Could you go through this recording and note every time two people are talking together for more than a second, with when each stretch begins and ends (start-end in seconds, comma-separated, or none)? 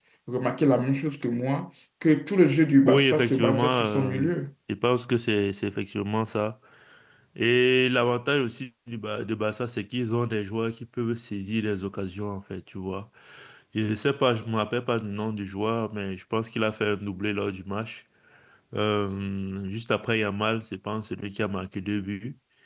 2.9-4.3